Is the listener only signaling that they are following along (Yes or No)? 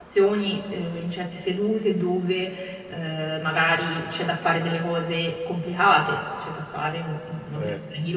Yes